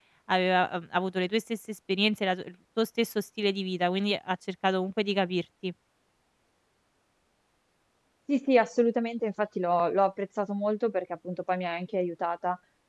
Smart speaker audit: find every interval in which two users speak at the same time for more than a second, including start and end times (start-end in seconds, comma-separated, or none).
none